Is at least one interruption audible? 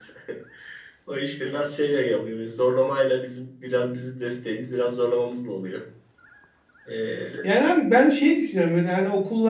No

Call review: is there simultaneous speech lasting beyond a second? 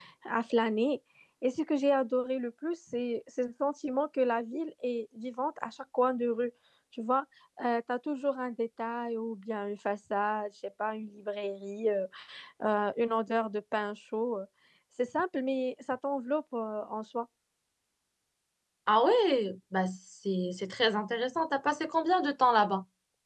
No

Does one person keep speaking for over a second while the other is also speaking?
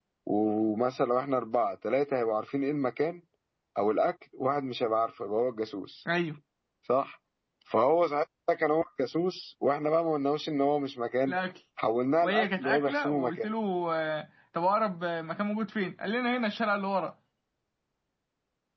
Yes, from 12.2 s

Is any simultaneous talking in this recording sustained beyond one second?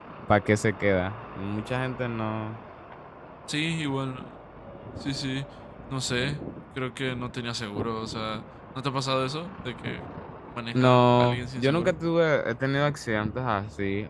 Yes, from 10.7 s

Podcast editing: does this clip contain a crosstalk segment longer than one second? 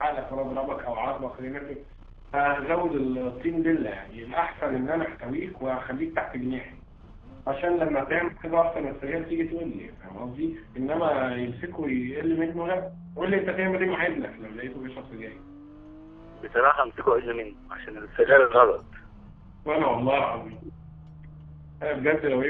No

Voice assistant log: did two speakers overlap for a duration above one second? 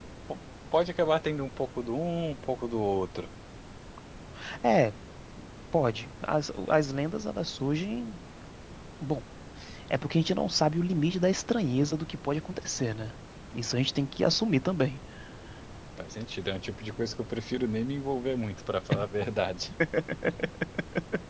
No

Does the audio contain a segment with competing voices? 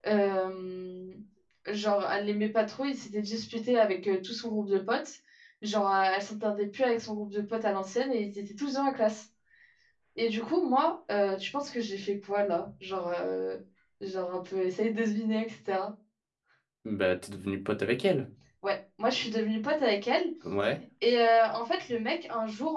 No

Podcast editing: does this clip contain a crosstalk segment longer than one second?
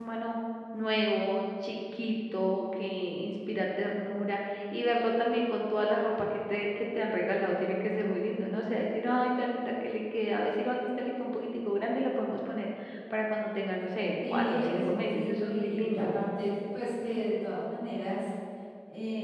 Yes, from 14.2 s

